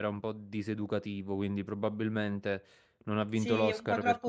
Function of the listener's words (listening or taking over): taking over